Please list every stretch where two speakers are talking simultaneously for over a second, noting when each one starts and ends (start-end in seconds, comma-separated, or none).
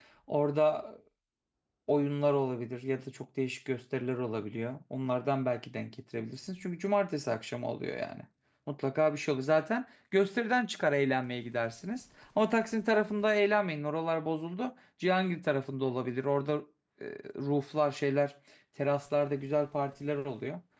none